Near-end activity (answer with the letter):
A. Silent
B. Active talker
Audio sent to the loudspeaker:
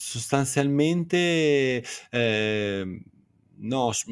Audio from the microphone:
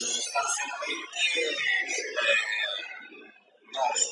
A